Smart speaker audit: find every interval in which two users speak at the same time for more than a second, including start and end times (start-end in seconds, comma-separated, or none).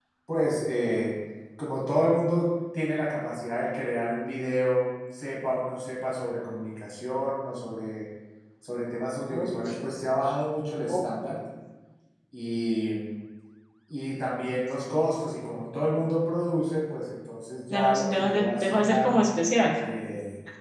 17.7-19.1